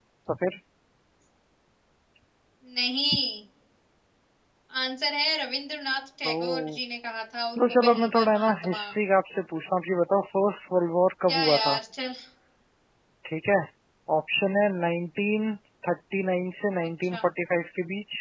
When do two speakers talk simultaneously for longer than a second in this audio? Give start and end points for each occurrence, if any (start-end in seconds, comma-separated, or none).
7.6-8.8